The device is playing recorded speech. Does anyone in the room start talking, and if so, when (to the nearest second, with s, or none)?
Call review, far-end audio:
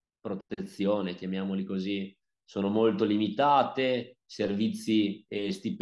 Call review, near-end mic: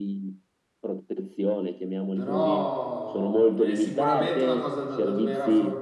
2 s